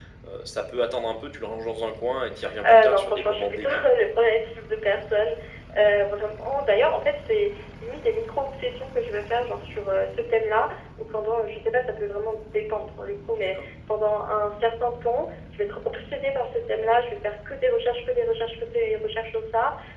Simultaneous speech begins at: 2.6 s

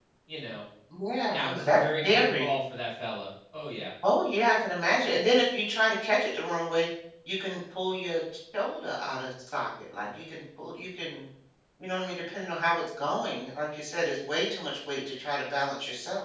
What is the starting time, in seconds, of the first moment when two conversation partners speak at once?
1.3 s

